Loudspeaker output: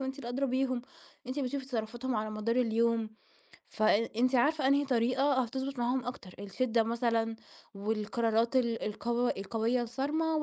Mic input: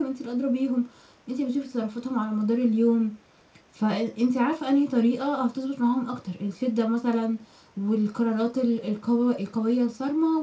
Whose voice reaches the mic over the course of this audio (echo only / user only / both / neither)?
echo only